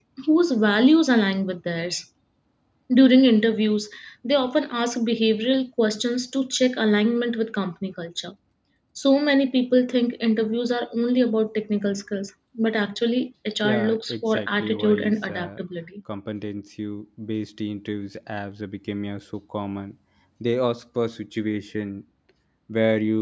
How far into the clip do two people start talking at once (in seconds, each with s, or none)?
13.6 s